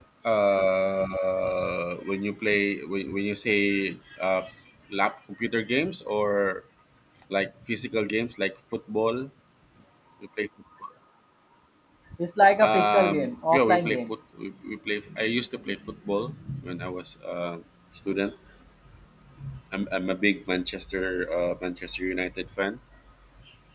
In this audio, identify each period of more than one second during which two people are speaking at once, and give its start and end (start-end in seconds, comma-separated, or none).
12.6-14.0